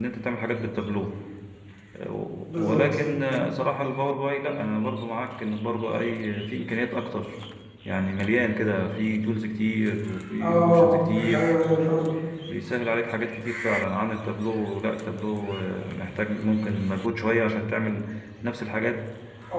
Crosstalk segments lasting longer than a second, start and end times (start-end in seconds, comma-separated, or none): none